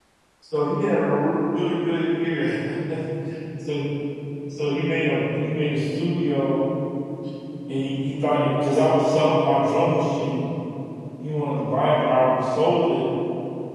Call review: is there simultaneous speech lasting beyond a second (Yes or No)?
No